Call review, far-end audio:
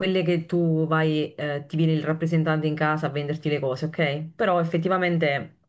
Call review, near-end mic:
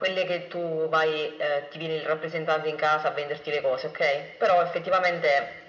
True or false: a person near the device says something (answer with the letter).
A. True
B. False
B